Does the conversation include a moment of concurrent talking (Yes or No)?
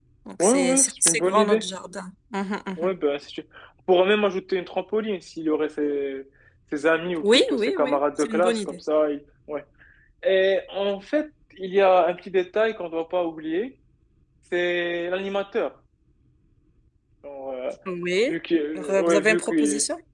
Yes